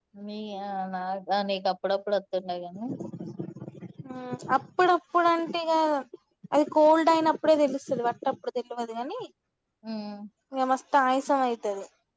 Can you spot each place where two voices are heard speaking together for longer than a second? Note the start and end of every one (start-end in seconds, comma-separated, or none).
none